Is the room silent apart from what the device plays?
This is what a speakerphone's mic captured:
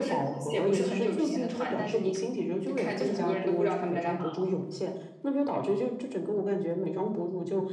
No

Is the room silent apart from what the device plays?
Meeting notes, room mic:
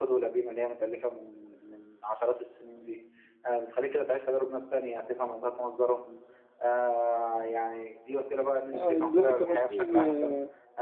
No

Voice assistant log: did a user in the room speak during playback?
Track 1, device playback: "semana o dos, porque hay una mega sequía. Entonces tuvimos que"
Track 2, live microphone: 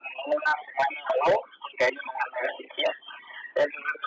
No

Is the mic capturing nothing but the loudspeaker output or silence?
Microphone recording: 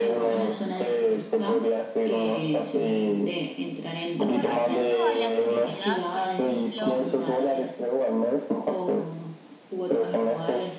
No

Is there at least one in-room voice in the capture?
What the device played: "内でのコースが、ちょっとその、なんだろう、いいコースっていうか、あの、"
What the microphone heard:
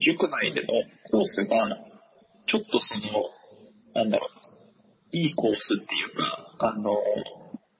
No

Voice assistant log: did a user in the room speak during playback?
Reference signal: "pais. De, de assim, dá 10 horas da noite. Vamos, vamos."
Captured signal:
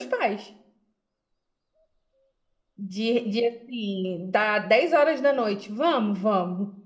No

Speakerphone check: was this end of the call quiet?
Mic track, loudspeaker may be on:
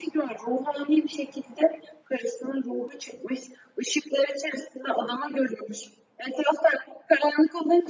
Yes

